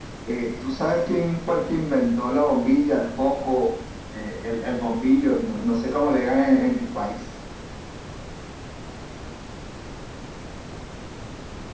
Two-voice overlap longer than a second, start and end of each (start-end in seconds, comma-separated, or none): none